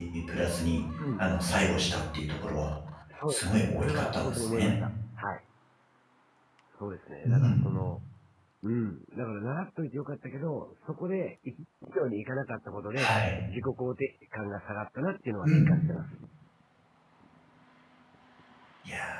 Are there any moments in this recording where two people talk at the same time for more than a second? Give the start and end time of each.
3.3-4.8

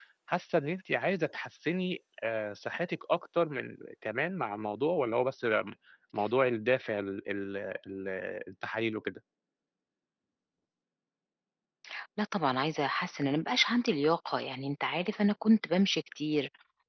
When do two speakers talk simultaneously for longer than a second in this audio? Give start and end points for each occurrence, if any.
none

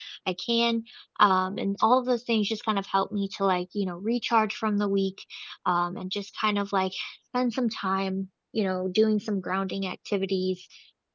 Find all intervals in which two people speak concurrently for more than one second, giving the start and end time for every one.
none

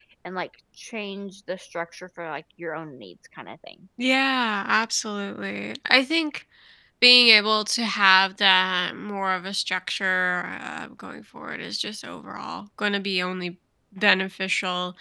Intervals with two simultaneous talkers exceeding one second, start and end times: none

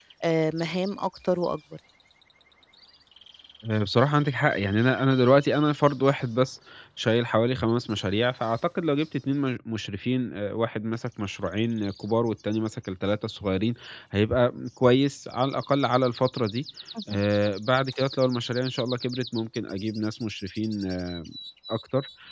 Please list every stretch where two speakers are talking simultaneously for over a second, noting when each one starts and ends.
none

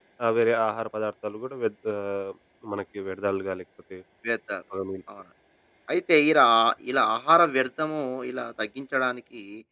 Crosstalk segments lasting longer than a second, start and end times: none

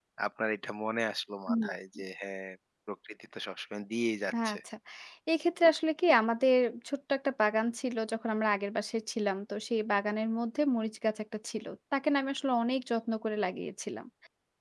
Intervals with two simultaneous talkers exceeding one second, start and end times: none

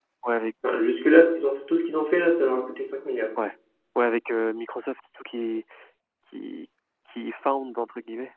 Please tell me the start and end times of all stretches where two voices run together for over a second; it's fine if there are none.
none

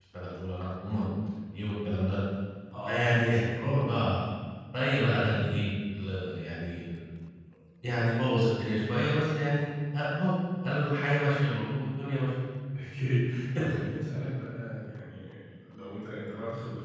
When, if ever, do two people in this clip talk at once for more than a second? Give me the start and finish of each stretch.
none

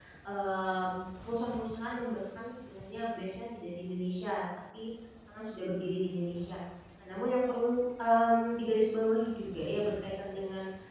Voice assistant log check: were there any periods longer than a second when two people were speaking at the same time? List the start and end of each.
none

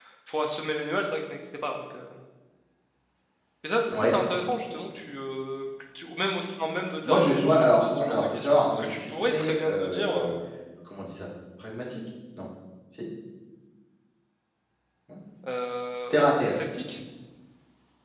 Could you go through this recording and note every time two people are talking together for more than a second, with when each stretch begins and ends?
7.0-10.3

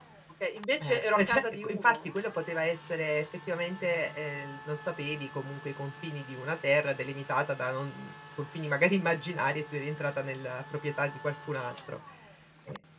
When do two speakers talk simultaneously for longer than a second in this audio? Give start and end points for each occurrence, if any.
0.8-2.0

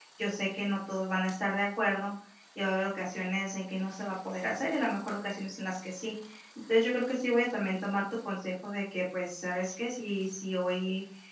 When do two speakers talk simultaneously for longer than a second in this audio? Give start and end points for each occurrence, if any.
none

